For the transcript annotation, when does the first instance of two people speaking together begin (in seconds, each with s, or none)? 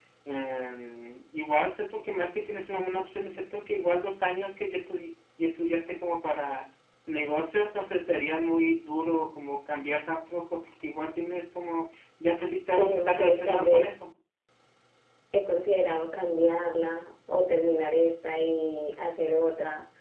12.8 s